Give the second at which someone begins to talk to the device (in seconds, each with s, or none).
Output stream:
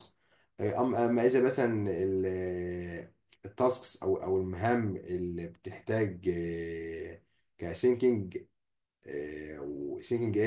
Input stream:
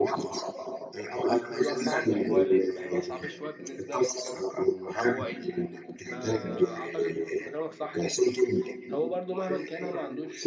1.5 s